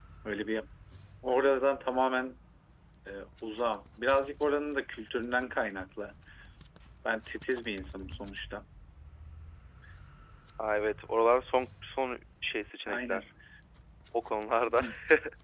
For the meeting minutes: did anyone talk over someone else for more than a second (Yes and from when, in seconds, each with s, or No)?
No